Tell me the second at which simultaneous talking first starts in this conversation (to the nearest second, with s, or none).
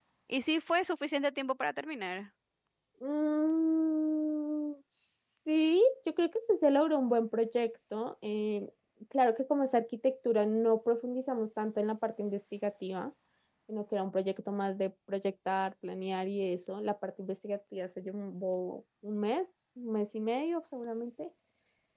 none